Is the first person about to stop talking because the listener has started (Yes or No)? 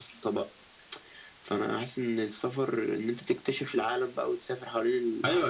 Yes